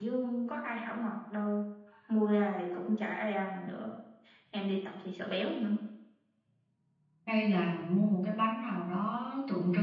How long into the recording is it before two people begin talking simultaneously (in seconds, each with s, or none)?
none